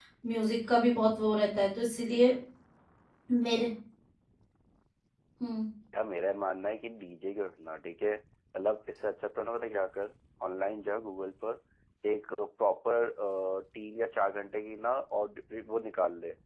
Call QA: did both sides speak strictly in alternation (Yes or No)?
Yes